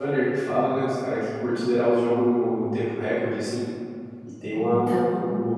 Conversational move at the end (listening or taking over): listening